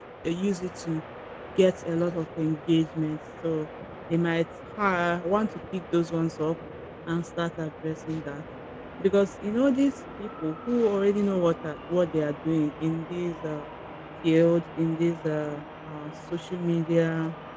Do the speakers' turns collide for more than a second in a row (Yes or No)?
No